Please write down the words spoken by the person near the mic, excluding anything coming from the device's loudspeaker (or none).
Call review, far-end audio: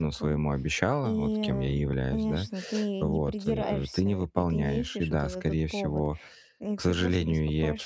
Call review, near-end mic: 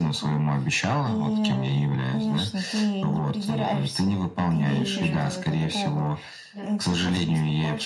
И, э да.